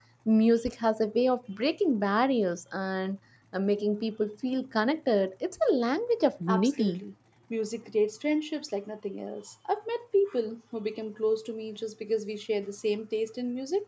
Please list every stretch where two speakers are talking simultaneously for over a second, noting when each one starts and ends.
none

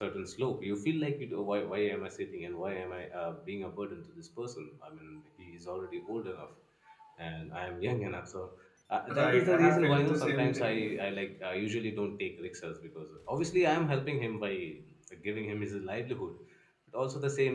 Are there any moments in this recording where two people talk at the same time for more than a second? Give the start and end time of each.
9.1-10.8

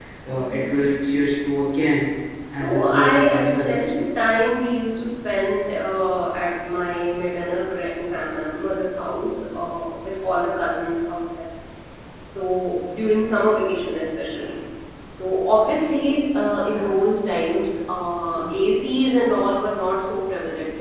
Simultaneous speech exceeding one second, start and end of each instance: 2.5-3.7

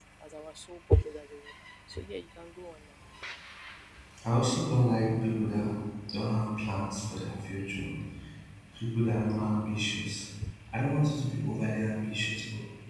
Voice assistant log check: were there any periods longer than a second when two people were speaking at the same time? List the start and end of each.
none

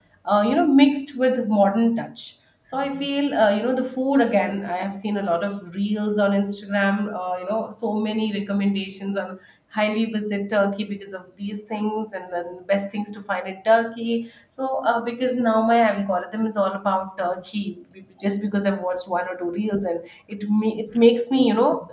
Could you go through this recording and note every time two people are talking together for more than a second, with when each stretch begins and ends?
none

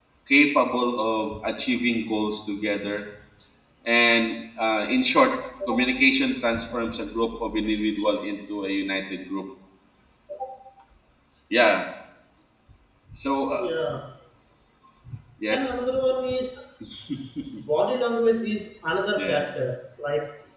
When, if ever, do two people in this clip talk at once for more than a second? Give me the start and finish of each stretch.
none

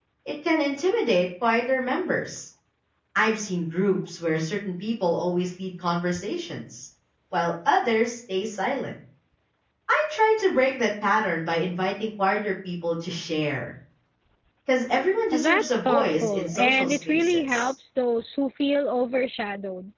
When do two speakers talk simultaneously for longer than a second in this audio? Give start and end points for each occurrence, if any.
15.3-17.7

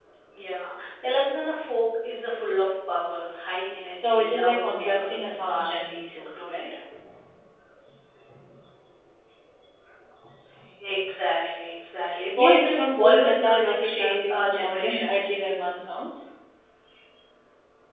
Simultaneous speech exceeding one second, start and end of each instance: 3.9-6.6, 12.4-15.2

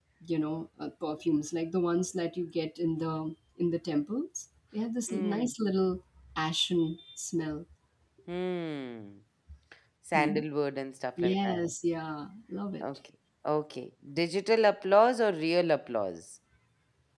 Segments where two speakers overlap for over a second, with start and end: none

